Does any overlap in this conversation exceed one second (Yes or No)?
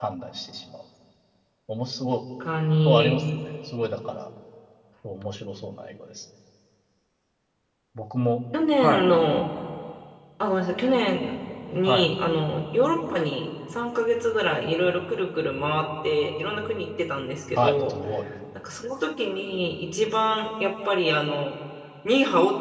No